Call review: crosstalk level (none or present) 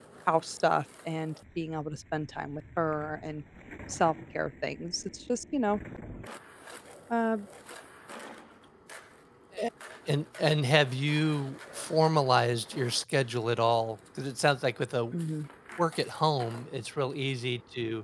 none